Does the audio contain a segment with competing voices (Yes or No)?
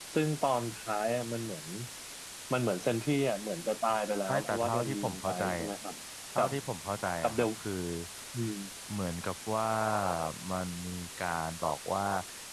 Yes